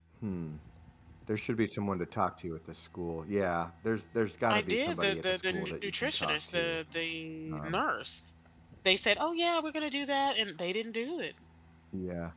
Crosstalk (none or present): present